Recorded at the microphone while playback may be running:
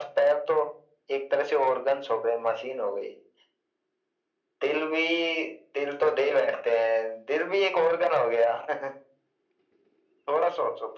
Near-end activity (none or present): none